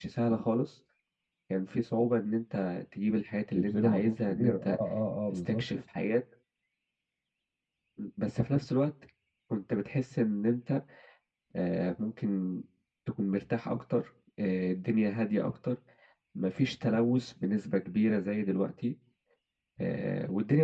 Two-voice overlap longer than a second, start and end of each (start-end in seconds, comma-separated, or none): 3.5-4.8